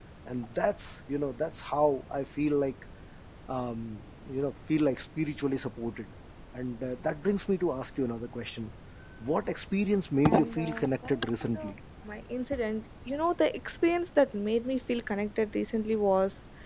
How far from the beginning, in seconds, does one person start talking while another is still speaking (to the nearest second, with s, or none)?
10 s